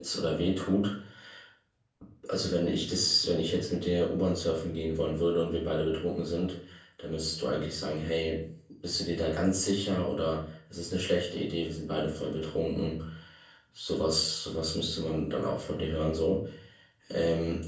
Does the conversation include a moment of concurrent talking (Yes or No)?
No